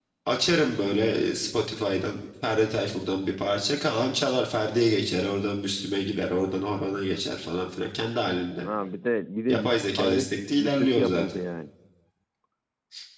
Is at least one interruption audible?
Yes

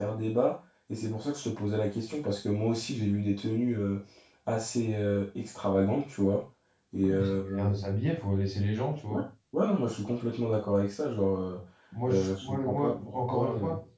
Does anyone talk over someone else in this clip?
Yes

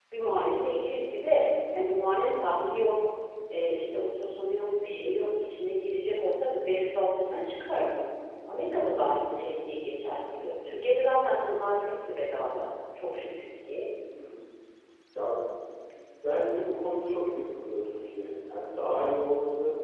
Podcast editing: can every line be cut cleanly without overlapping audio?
Yes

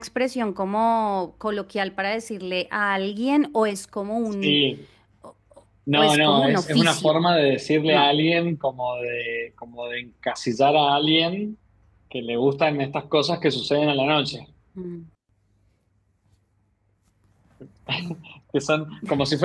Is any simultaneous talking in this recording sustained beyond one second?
Yes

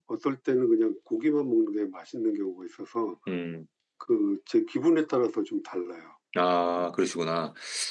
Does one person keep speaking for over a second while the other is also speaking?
No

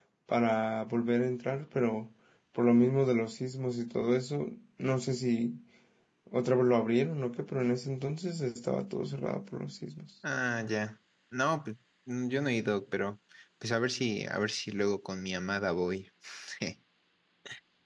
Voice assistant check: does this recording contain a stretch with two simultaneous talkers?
No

